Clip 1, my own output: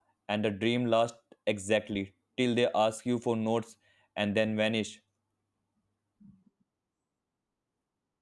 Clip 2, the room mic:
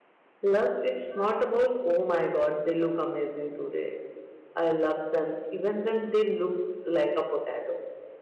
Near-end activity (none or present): present